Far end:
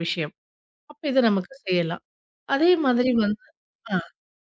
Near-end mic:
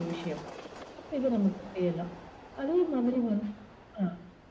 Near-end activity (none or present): none